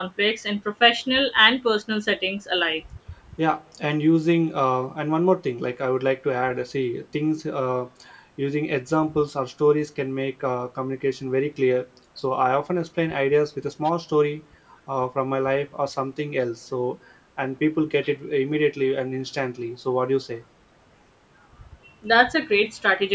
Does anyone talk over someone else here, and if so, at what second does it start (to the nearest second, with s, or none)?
none